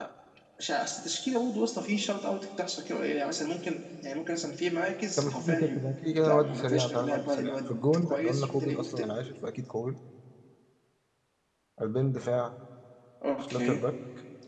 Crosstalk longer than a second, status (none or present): present